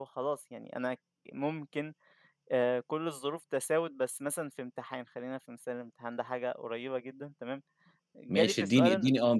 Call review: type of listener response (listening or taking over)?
taking over